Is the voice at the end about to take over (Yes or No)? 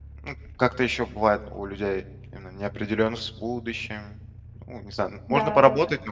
No